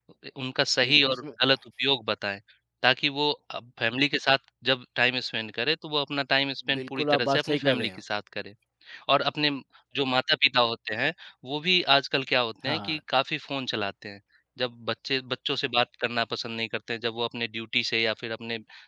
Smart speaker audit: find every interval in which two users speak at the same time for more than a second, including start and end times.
6.7-8.0

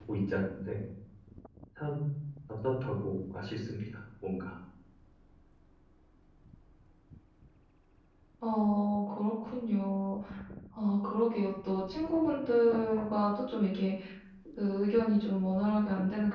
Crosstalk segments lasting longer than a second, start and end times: none

